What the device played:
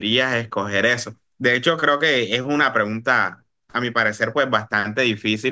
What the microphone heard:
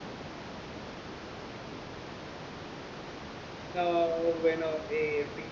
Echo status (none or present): none